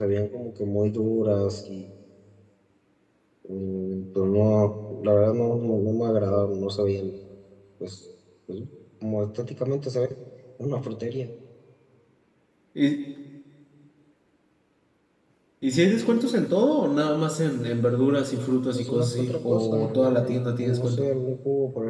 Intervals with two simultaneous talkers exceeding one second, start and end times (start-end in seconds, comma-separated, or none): 18.7-20.4